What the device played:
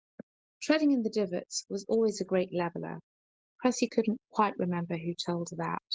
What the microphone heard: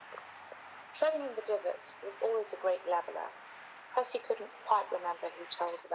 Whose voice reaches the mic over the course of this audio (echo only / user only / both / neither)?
echo only